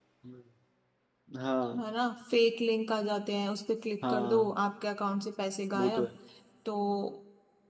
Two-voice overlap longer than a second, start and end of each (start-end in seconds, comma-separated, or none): none